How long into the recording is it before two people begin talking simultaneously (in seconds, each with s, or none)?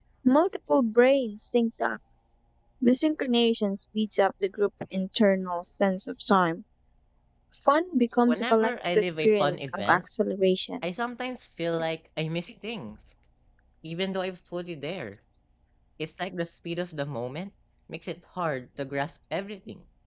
8.3 s